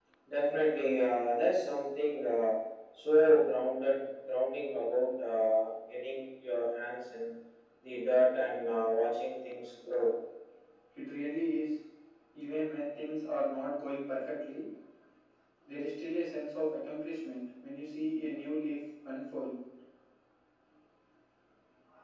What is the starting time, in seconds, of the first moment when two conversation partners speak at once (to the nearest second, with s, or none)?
none